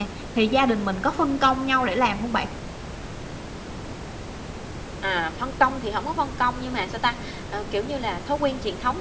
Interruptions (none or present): none